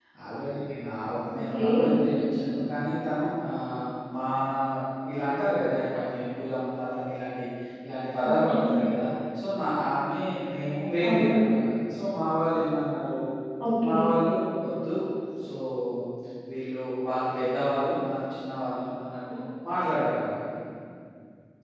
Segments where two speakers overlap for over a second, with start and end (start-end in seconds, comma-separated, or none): none